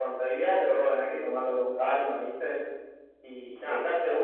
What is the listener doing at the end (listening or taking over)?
listening